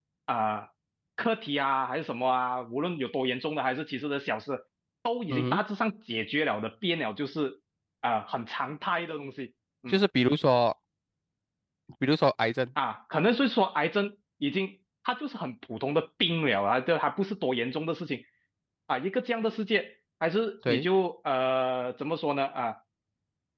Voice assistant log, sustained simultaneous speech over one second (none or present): none